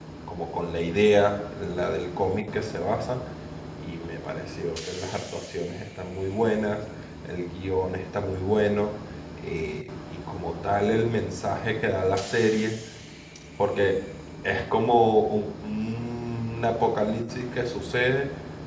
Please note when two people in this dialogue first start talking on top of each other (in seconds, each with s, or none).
none